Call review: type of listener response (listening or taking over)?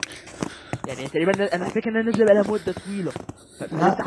taking over